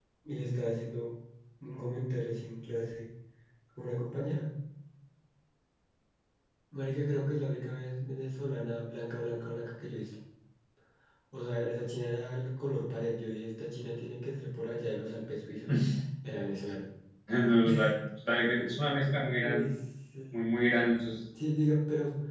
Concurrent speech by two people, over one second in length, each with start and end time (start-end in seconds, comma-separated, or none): none